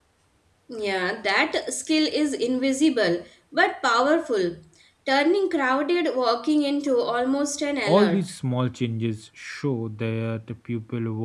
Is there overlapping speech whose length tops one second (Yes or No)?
No